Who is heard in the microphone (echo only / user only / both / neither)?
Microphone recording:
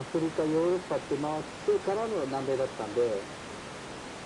echo only